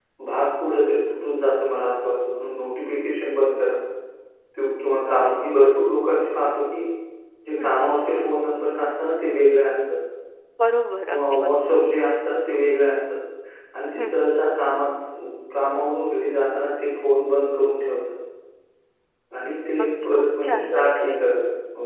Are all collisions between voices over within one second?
No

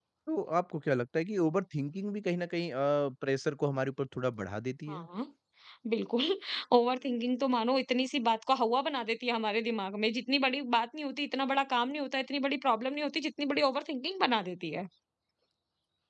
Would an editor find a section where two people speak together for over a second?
No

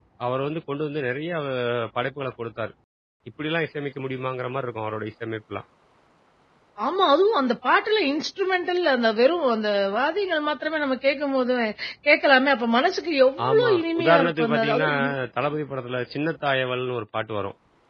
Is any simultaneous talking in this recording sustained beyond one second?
Yes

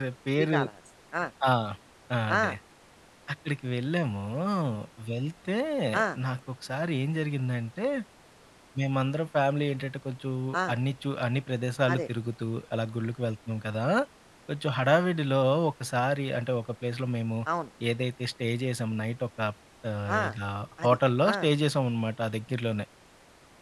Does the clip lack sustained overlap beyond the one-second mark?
Yes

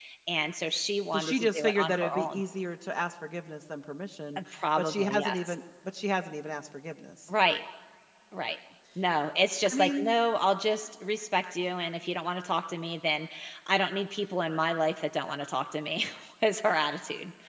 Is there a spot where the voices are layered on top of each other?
Yes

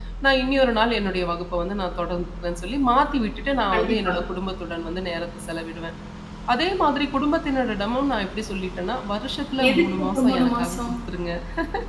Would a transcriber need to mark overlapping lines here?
Yes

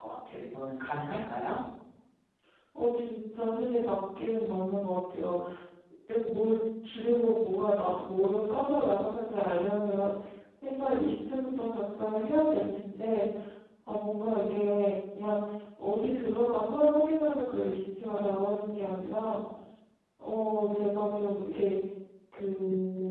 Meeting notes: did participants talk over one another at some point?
No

